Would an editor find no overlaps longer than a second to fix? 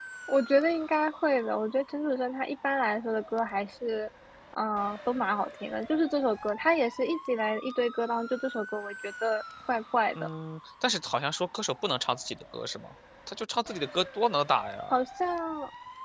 Yes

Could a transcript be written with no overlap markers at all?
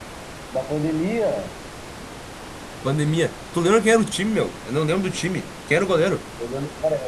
Yes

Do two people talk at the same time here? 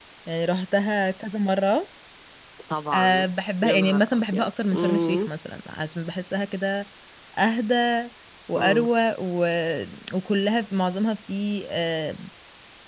Yes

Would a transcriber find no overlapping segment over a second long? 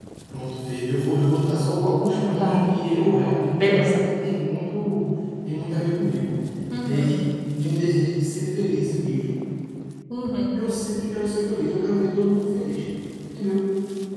Yes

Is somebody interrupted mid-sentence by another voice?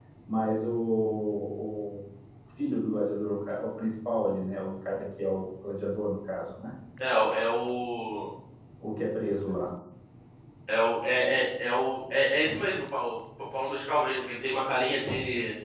No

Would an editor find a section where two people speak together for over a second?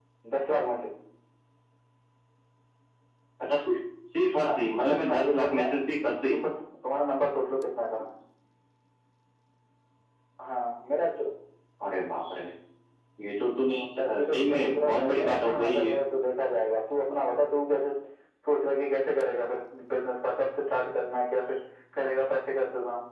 Yes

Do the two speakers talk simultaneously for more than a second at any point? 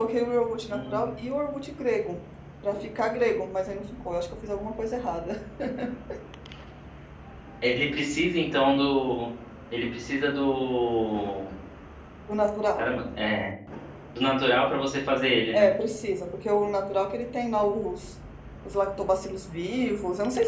No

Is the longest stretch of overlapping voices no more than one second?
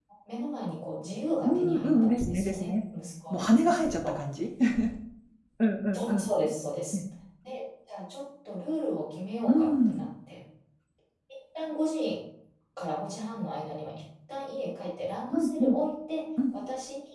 No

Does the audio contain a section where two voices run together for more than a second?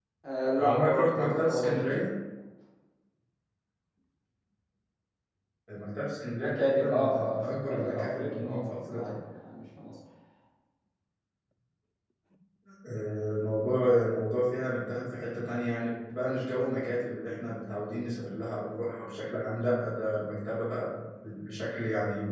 Yes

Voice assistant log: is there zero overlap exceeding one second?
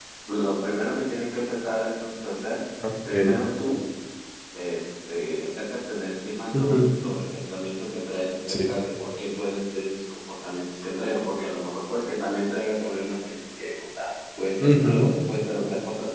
Yes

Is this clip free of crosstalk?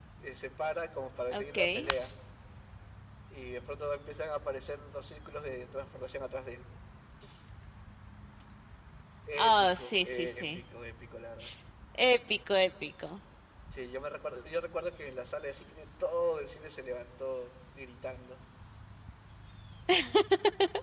No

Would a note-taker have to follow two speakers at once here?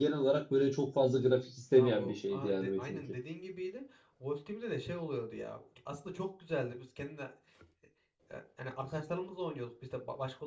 Yes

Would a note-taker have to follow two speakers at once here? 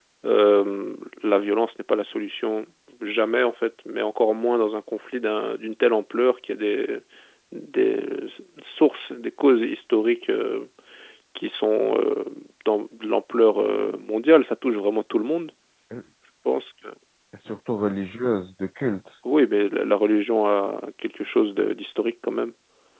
No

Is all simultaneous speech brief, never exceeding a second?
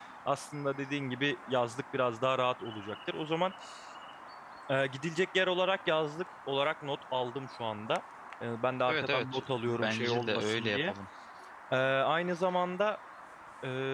No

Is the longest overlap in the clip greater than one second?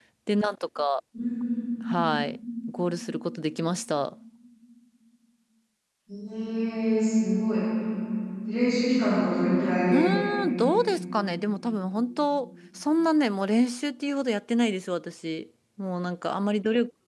No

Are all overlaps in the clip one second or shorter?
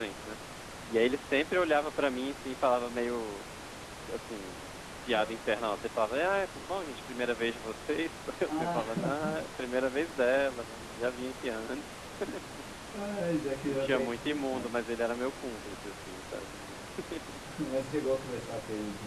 No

